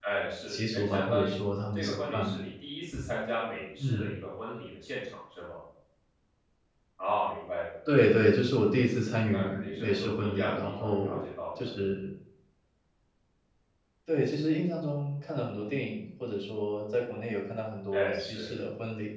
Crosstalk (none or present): present